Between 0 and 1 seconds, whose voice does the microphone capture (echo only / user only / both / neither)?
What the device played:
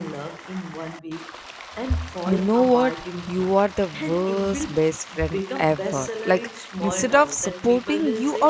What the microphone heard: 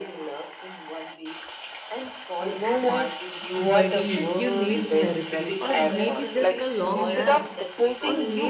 echo only